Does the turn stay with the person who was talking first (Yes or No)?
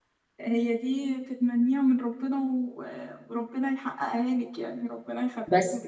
No